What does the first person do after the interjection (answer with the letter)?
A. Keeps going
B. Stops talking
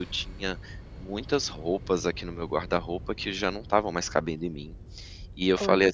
A